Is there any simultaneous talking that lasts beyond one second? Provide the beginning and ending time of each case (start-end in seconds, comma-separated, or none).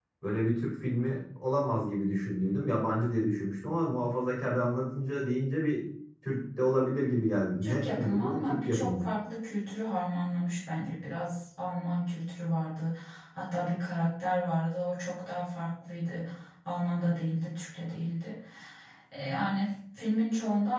7.6-9.0